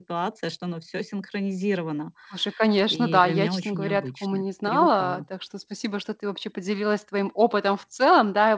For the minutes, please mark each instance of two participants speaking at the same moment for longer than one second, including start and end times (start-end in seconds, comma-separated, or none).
2.9-5.2